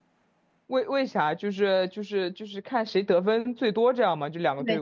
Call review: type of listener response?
taking over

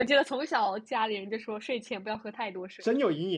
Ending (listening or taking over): taking over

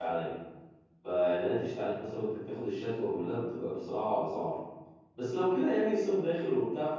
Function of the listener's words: listening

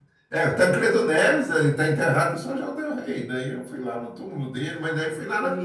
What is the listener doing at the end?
listening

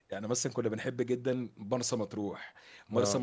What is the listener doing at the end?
listening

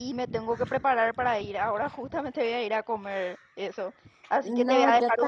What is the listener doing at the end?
taking over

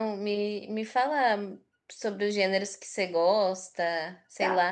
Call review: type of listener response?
taking over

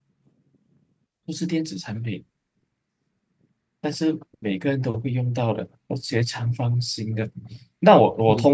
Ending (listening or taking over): listening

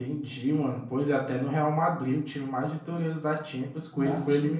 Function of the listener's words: taking over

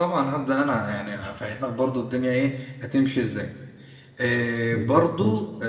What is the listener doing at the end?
listening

